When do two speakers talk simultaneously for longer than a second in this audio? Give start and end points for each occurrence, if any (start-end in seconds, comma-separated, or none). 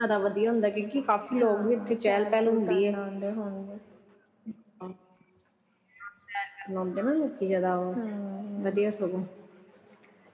1.4-2.9